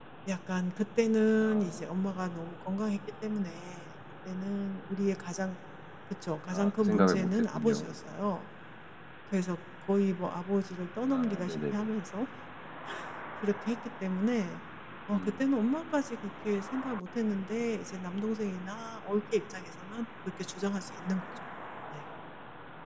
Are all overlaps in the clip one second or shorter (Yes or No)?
No